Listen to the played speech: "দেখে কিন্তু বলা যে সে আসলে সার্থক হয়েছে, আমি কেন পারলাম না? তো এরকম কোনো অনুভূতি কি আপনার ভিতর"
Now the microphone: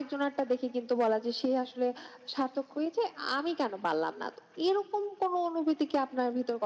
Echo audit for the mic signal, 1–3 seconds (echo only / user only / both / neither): echo only